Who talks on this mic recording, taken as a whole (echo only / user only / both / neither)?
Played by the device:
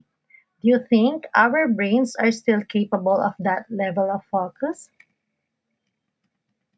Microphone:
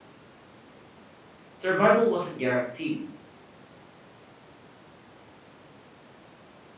user only